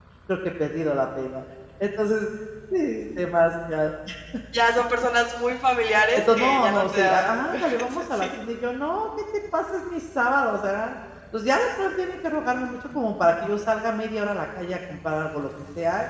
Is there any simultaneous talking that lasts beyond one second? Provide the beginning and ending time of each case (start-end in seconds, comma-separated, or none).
6.2-8.4